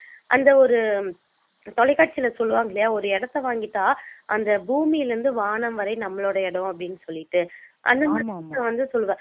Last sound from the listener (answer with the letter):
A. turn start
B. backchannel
B